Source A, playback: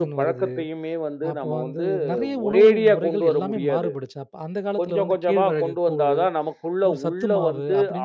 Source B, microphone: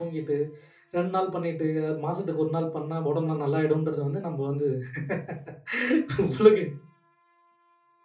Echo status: none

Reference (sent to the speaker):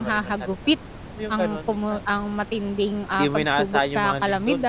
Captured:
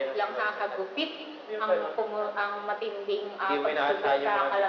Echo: present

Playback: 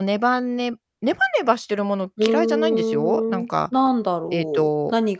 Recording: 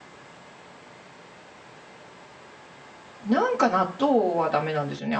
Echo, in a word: none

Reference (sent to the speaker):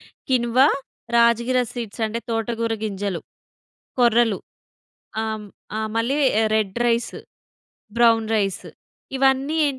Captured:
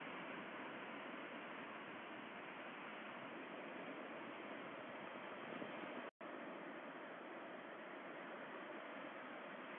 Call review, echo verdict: none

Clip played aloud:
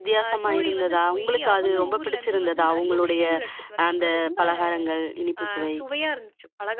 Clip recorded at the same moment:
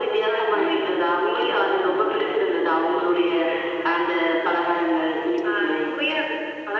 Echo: present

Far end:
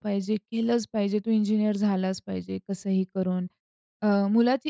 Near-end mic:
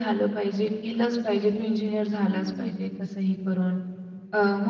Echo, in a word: present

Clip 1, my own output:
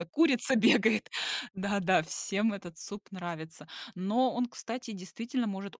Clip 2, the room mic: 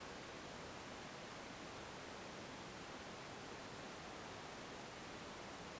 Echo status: none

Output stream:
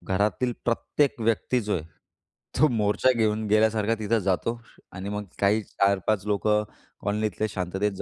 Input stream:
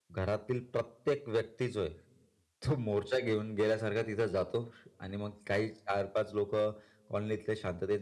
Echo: present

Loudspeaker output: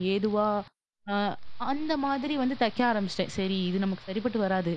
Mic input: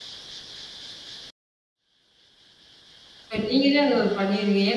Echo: none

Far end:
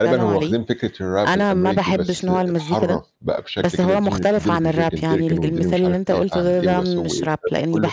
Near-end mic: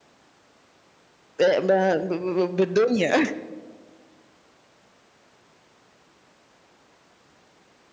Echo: none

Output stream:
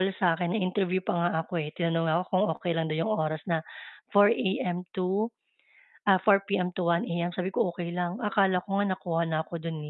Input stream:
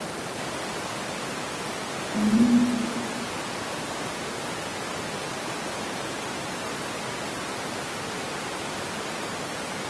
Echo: none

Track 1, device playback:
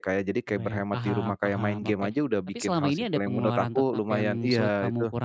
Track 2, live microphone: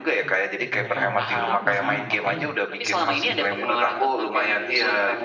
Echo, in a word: present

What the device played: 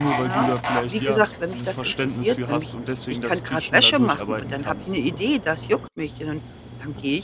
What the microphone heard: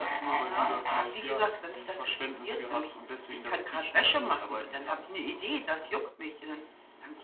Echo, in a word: present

